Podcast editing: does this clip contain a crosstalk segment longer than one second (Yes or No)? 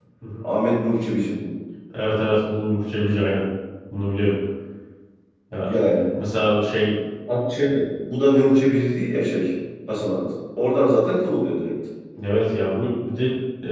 No